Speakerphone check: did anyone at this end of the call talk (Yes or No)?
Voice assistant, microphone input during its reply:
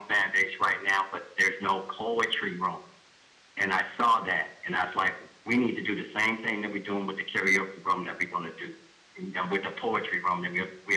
No